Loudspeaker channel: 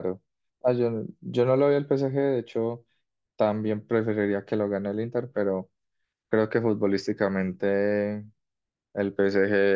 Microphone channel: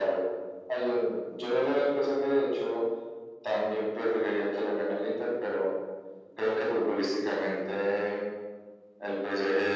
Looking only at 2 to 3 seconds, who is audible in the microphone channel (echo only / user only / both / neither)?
echo only